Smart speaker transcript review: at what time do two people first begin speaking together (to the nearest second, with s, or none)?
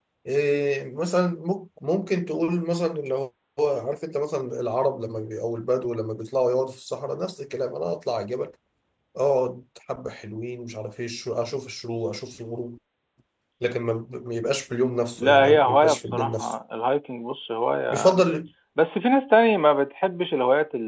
15 s